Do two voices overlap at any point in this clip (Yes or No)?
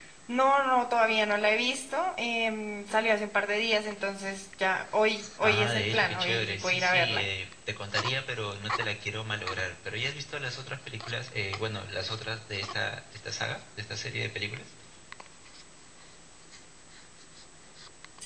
Yes